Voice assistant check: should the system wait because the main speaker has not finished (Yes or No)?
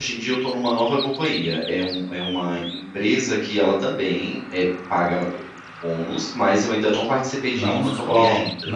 No